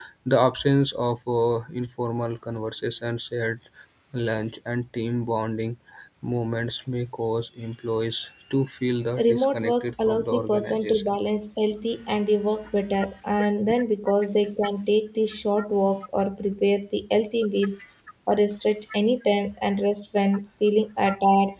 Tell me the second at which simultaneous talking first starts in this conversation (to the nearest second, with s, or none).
9 s